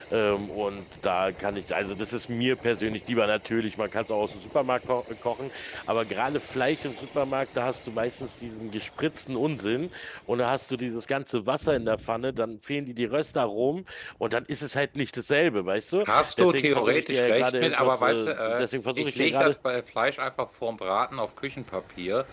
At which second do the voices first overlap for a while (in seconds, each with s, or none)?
16.0 s